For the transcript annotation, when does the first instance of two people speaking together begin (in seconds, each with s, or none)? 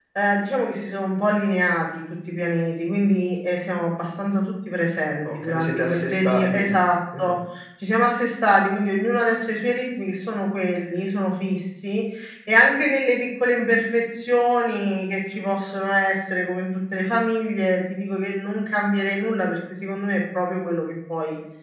5.2 s